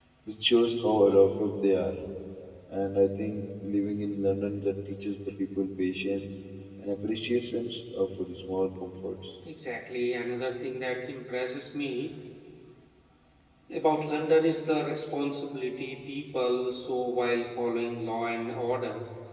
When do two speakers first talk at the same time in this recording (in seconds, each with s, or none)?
none